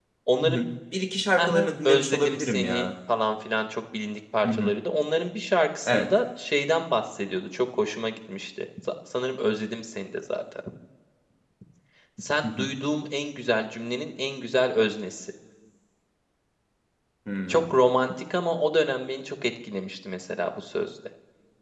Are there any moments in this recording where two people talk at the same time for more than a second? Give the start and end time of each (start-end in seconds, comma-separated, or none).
1.4-2.9